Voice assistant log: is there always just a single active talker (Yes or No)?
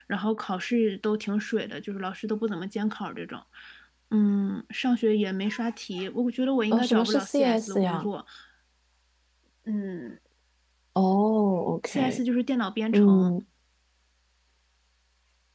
No